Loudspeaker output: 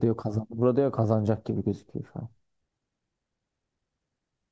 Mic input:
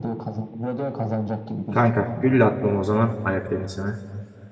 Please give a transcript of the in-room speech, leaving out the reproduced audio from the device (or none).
Kanka gülle atmam o zaman ayak tenisine.